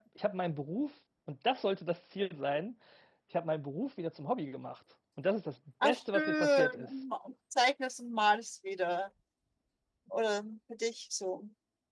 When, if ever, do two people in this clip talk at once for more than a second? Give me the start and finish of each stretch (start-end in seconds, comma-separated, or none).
5.8-7.0